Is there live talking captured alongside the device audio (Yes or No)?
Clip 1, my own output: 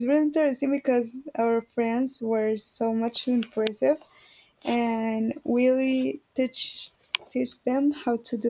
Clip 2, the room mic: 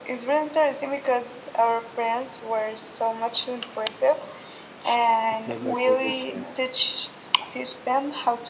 Yes